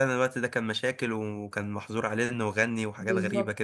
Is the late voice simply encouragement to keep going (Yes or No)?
No